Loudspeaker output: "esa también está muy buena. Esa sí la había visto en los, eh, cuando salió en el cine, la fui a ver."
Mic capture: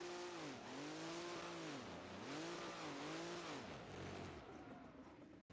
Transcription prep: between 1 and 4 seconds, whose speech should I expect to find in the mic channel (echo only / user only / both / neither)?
neither